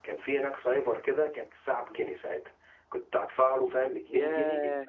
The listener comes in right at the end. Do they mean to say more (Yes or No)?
No